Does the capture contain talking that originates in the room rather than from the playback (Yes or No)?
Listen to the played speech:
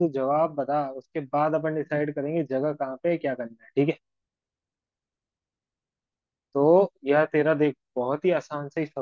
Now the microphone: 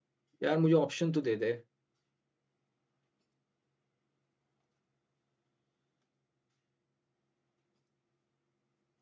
Yes